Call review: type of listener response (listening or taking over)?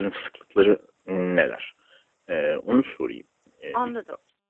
taking over